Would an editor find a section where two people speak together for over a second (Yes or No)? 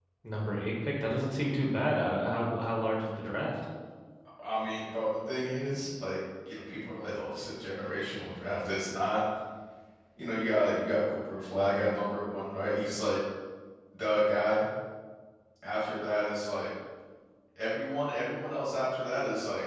No